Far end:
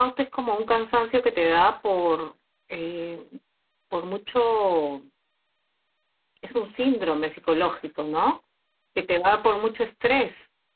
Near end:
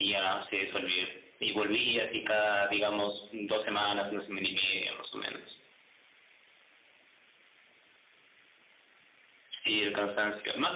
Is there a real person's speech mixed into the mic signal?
Yes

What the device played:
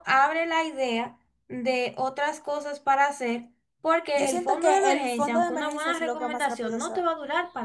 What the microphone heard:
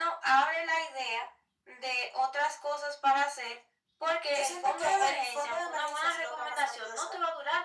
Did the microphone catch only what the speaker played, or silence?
Yes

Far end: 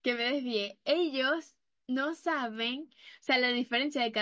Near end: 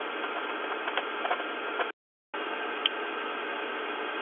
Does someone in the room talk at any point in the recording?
No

